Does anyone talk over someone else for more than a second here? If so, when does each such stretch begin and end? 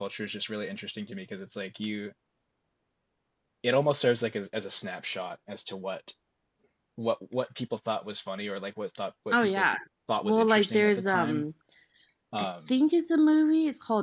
10.2-11.4

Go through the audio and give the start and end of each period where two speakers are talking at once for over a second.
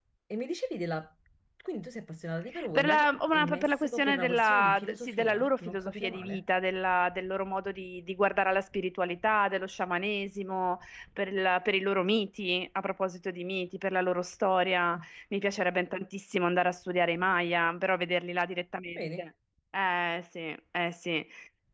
2.7-6.4

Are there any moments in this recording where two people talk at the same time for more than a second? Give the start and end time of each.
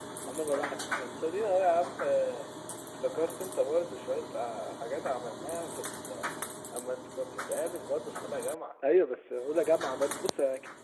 none

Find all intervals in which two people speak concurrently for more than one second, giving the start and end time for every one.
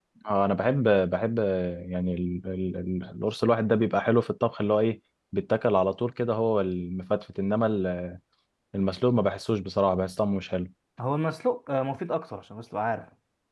none

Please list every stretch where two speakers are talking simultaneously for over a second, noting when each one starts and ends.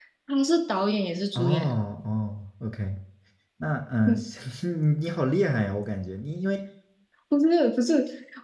none

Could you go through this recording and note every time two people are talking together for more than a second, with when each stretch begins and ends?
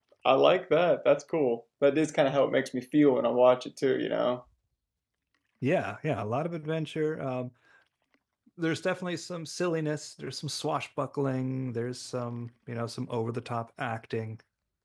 none

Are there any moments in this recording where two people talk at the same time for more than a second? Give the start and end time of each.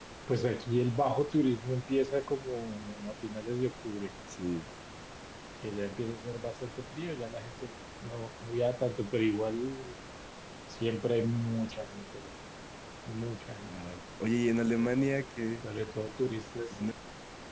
none

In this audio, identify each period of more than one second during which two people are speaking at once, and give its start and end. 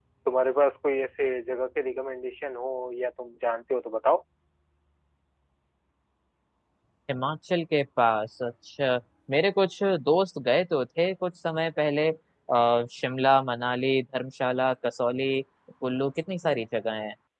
none

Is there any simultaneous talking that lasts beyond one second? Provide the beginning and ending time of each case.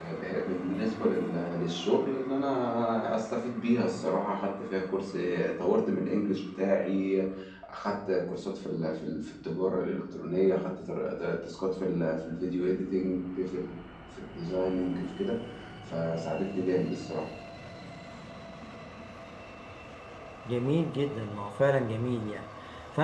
none

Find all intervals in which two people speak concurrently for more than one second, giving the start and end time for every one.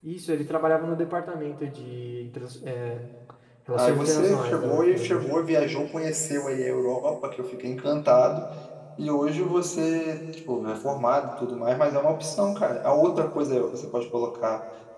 3.7-5.2

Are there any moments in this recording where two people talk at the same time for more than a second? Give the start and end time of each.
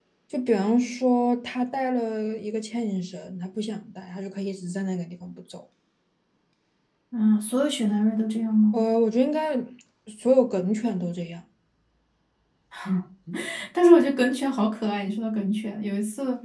none

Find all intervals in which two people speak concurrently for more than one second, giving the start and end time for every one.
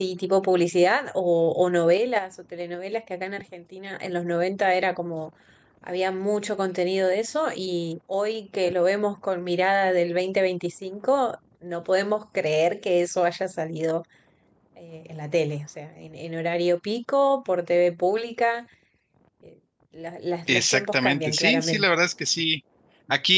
20.5-21.9

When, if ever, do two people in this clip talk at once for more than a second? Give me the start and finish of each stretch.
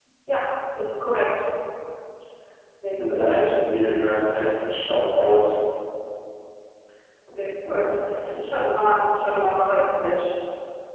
none

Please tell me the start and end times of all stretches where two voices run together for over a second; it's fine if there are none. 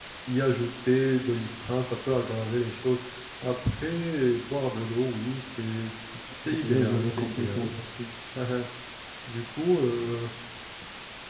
6.5-7.7

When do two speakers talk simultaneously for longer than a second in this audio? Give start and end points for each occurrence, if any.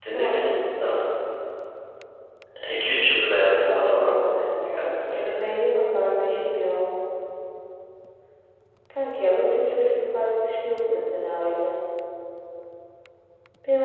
3.7-5.4

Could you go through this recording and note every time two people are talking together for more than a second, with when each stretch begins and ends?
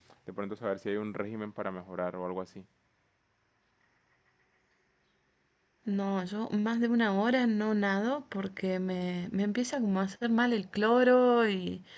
none

